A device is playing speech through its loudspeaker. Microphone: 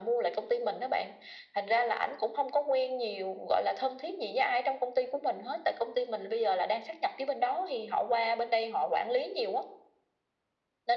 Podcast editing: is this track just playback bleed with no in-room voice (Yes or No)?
Yes